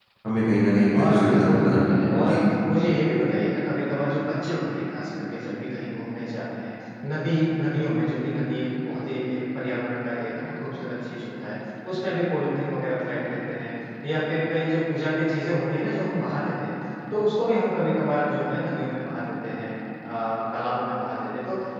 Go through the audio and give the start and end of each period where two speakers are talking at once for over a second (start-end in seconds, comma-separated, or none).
0.9-2.4